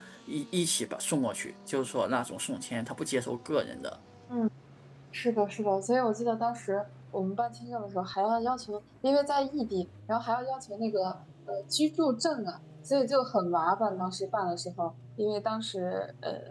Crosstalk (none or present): none